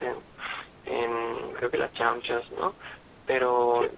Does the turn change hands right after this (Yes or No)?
No